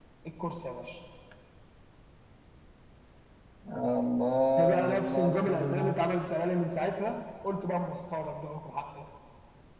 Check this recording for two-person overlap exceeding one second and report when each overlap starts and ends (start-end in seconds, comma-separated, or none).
4.6-6.0